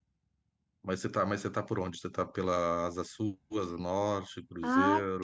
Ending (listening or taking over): taking over